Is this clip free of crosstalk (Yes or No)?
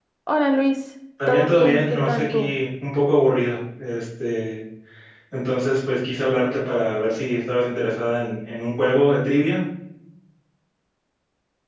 No